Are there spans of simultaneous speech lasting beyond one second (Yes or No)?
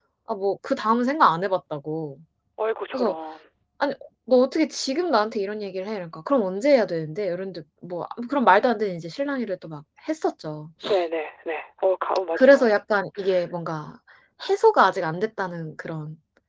No